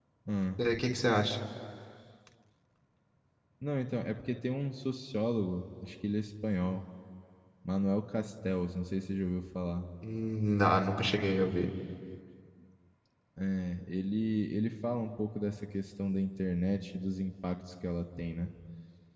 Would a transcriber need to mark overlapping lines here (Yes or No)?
No